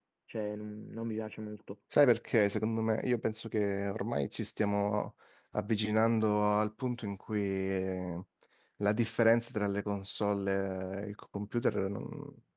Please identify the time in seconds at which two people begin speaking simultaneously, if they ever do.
none

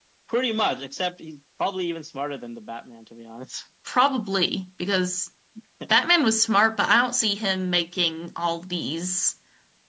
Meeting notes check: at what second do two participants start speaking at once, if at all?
none

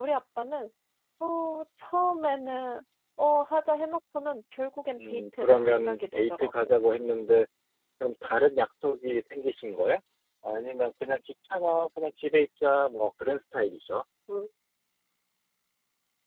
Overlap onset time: 5.0 s

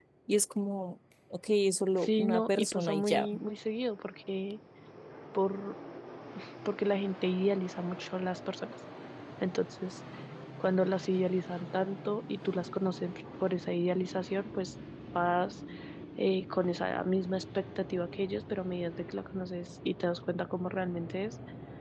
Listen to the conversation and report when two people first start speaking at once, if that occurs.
2.0 s

